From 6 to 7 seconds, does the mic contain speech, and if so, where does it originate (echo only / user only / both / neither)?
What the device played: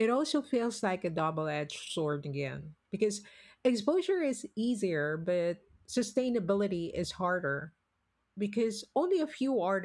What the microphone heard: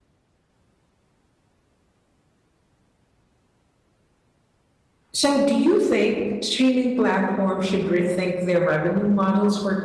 user only